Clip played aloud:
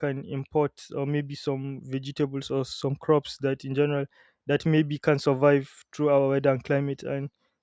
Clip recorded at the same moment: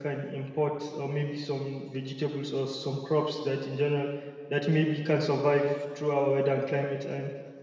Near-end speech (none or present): none